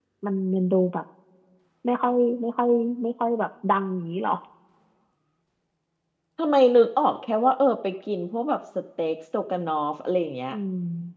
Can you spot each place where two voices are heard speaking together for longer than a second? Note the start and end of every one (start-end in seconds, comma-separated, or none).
none